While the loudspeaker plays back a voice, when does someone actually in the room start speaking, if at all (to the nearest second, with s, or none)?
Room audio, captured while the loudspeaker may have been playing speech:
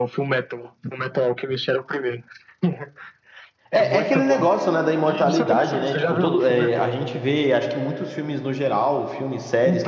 4 s